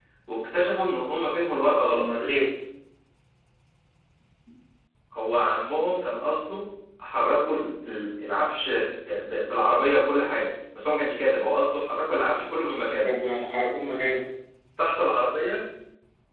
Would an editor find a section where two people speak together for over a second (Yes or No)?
No